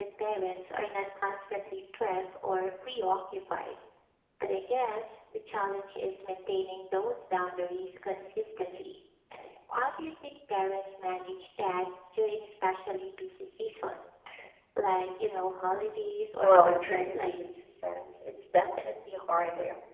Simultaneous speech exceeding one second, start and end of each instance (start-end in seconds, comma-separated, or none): 16.4-17.6